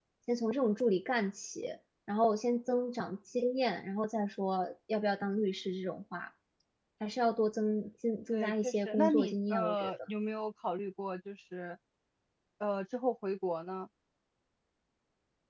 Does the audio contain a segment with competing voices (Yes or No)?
Yes